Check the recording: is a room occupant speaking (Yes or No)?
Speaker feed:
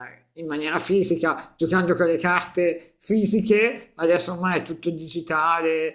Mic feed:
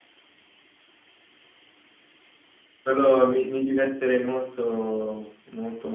Yes